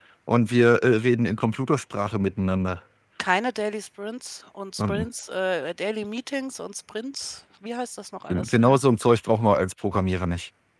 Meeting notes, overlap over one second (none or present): none